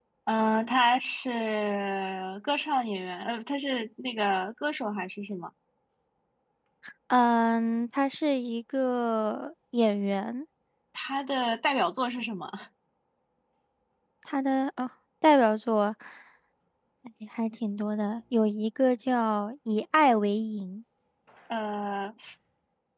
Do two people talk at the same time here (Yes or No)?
No